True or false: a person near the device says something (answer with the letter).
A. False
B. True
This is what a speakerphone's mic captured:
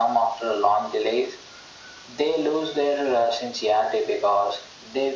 A